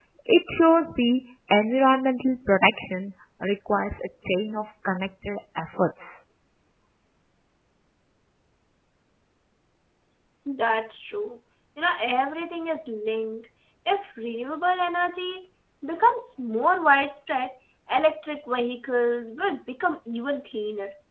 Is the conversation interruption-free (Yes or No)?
Yes